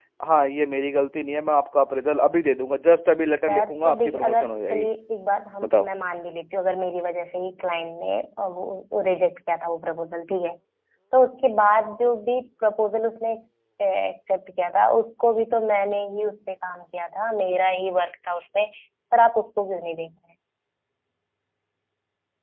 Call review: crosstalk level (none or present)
present